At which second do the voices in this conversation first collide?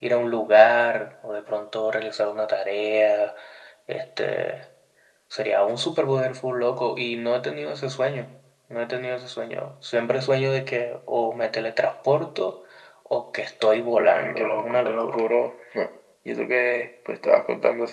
14.0 s

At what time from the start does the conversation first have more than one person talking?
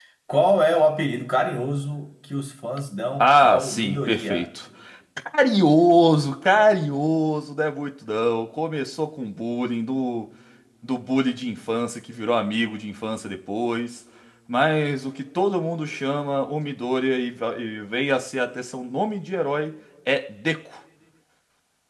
3.2 s

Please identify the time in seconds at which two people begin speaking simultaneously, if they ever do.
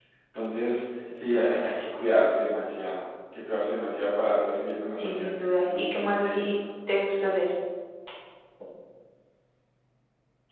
5.0 s

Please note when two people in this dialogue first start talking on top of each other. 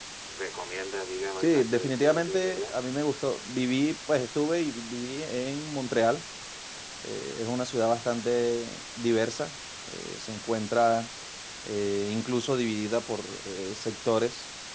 1.4 s

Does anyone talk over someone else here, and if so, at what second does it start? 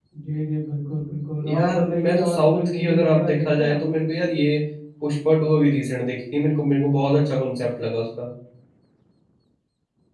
1.4 s

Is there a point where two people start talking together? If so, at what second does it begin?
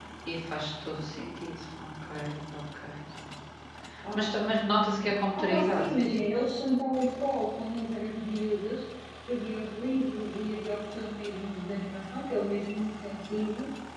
4.1 s

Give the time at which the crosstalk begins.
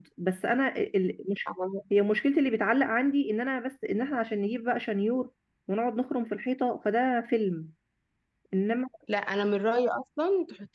none

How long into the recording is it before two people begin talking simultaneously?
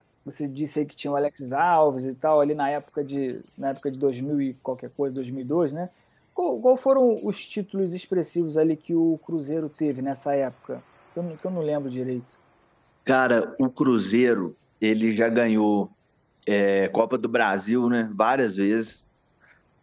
none

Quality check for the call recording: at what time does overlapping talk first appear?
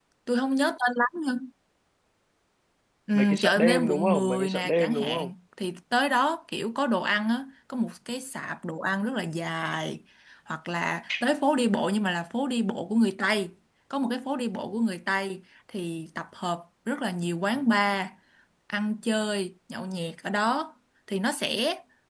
3.1 s

